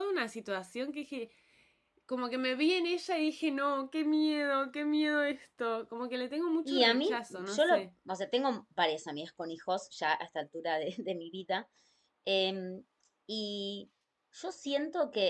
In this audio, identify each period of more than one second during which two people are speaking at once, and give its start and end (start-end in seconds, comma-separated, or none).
6.7-7.8